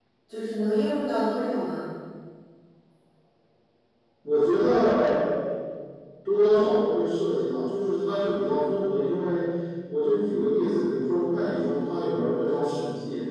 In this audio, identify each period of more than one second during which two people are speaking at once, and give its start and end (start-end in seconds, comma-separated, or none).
none